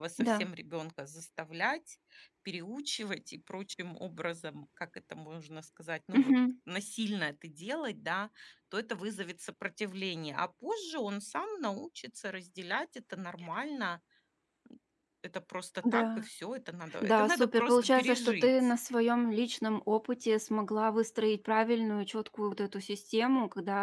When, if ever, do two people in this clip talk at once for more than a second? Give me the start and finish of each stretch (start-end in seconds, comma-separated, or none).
17.0-18.8